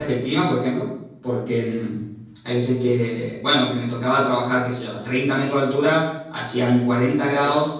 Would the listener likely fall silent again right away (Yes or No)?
Yes